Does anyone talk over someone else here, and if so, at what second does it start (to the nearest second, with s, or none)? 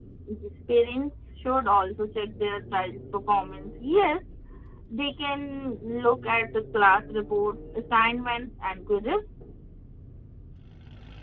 none